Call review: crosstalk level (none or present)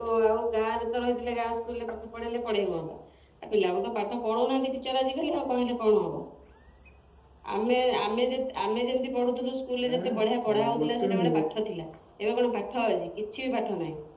present